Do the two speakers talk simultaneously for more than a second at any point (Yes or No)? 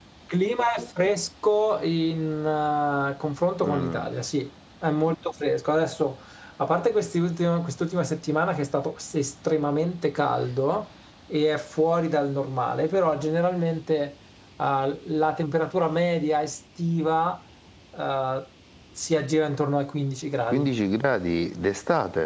No